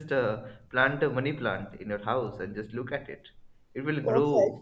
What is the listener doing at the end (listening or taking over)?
listening